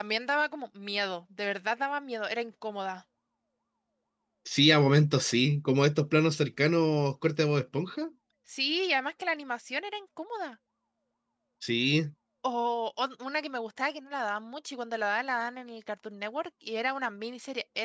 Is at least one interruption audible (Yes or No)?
No